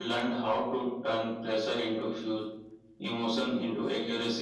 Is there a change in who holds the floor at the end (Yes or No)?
No